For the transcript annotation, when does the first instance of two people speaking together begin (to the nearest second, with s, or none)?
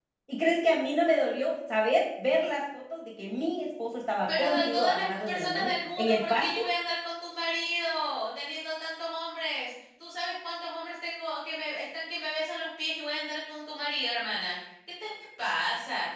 4 s